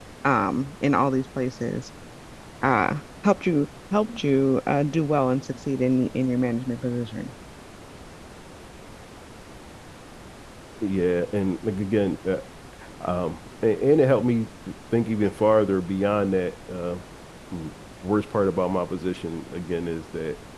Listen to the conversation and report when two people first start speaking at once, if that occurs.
none

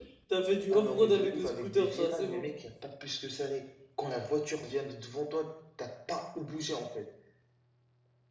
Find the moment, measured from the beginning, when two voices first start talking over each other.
1 s

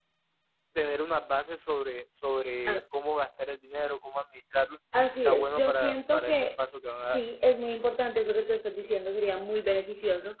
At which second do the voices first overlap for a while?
5 s

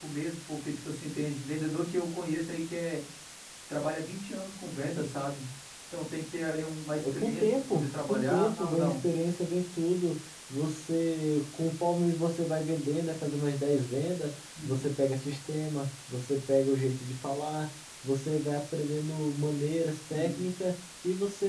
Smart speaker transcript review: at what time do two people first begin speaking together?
7 s

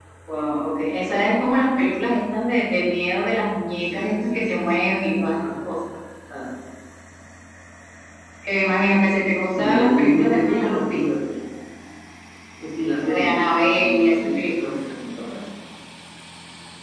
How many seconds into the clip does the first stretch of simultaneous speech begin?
4 s

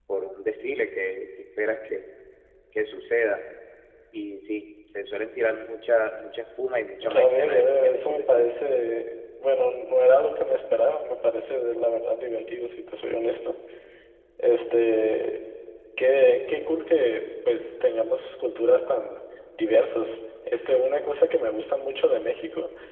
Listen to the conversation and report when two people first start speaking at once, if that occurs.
7 s

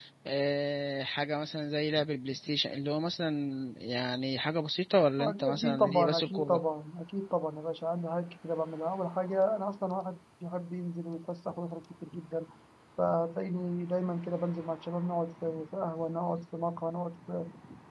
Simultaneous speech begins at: 5 s

